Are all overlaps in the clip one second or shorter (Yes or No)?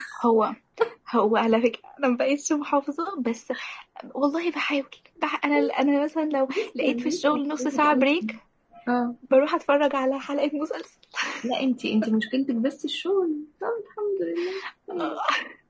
No